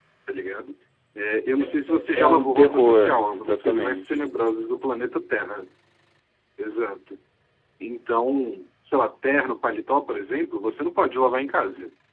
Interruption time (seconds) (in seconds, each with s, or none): 2.1 s